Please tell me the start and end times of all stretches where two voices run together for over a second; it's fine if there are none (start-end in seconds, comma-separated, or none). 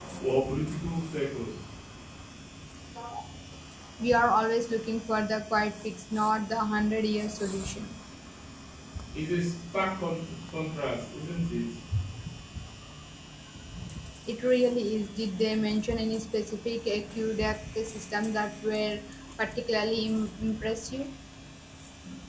none